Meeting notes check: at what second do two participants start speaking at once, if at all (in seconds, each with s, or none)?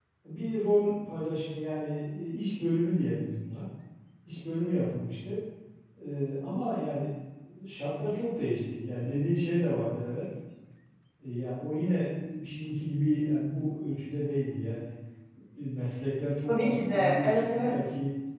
16.5 s